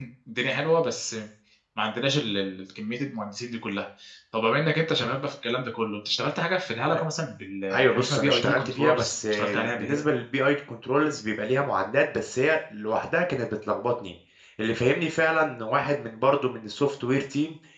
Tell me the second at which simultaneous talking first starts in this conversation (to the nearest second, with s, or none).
8 s